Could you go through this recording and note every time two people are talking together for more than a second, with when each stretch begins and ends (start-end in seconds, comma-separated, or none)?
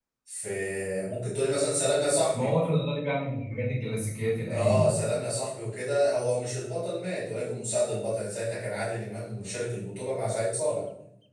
none